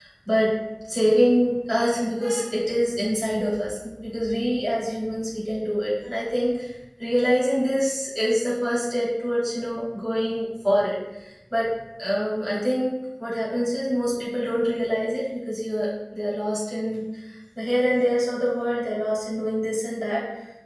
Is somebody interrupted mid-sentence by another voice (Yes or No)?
No